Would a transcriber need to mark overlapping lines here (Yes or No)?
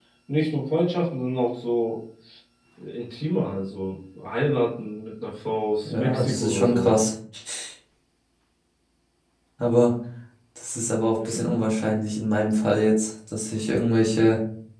Yes